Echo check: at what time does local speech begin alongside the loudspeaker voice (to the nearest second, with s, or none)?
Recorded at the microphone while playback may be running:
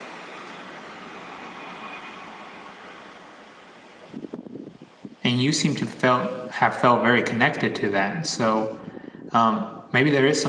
5 s